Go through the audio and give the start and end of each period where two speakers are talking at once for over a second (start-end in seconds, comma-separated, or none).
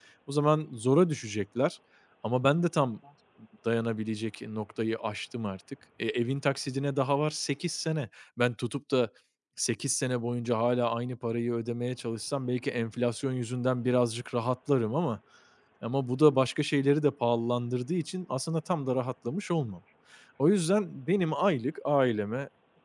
none